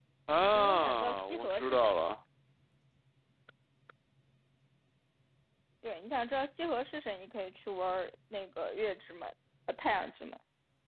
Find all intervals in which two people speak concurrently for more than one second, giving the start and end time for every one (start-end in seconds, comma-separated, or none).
0.5-2.0